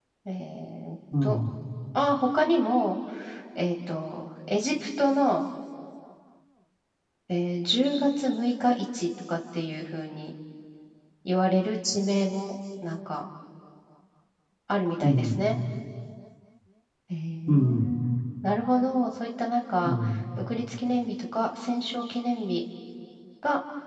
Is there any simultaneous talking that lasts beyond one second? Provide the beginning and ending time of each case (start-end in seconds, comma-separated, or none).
none